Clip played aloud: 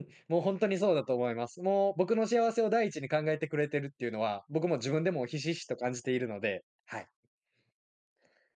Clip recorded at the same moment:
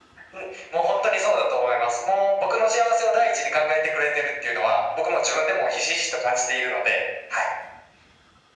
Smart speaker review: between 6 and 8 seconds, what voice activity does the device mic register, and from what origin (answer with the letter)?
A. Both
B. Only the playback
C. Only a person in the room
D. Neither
B